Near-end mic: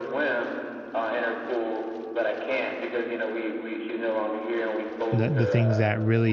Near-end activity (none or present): present